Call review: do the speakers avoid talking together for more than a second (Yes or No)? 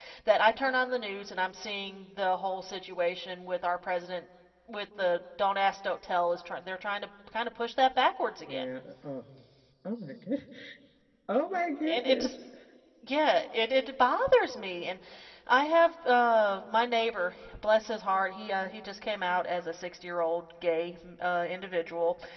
Yes